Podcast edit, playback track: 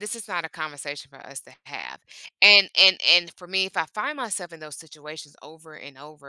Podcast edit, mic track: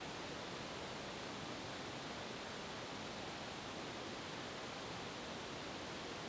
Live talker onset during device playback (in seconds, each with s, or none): none